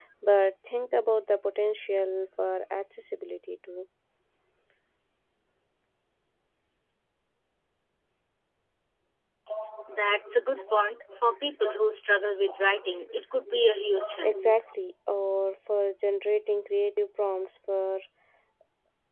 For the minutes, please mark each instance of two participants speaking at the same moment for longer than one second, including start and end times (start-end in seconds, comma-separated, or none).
none